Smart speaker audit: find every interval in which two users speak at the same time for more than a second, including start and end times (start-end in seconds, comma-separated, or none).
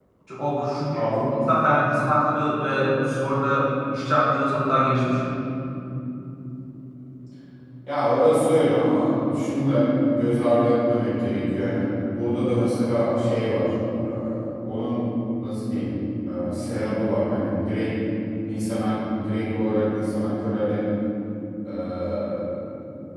none